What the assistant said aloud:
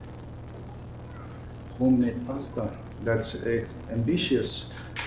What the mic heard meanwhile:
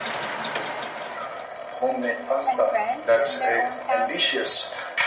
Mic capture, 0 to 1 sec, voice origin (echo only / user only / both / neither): neither